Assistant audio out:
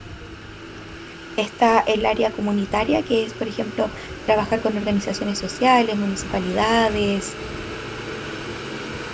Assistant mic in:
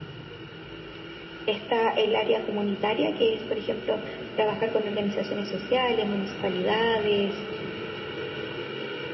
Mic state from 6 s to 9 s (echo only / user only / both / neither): echo only